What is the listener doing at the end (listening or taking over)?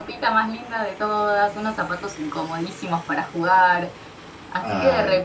listening